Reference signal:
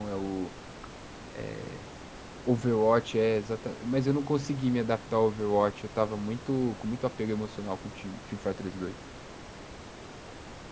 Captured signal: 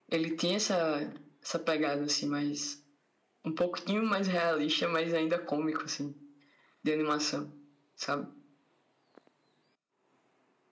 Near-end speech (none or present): present